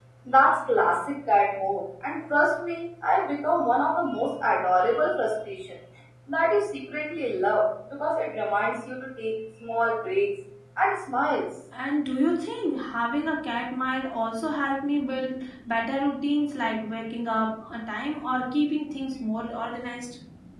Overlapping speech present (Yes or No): No